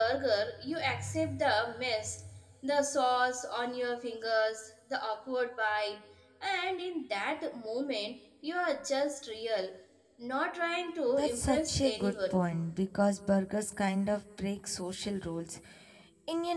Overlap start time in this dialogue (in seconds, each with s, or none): 11.1 s